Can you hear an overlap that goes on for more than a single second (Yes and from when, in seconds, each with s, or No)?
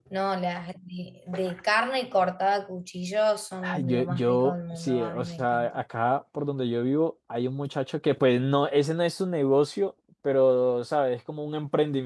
Yes, from 3.6 s